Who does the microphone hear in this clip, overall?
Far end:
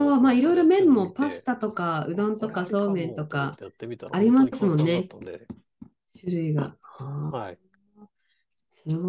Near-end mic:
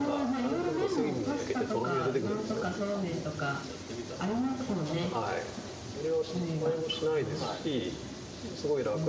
both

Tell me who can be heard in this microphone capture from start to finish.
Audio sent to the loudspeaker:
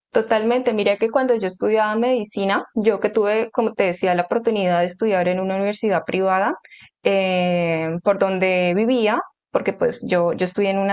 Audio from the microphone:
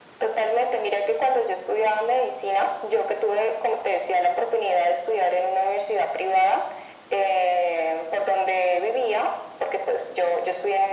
echo only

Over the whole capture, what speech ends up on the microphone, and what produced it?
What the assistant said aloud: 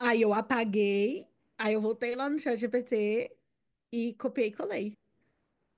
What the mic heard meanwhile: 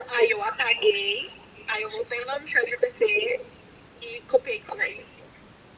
echo only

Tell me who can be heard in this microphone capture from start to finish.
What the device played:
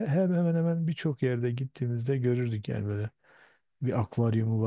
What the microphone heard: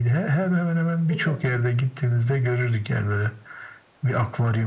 both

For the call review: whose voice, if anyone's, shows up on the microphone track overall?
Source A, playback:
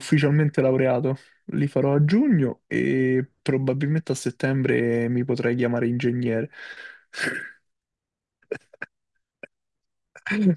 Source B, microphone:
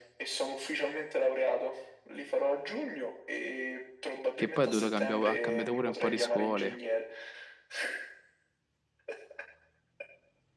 both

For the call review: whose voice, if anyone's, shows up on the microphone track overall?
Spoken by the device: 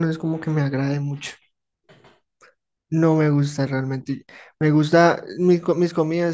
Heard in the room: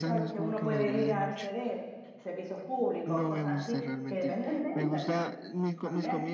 both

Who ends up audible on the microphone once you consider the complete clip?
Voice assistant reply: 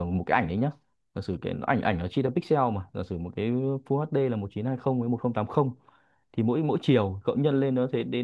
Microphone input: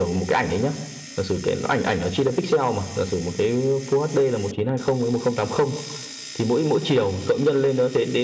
echo only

